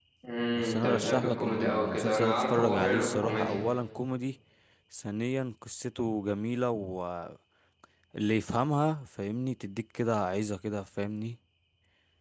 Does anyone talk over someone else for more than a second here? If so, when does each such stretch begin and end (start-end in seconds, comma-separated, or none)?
0.6-3.6